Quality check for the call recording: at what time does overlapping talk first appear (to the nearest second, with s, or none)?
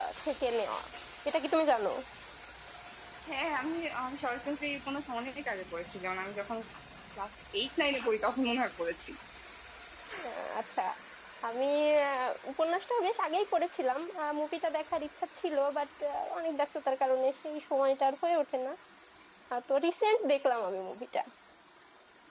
none